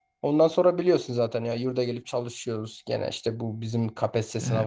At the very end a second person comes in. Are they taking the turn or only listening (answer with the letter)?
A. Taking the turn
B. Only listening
B